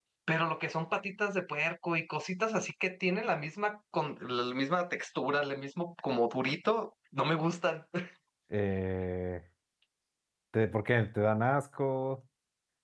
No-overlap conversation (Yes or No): Yes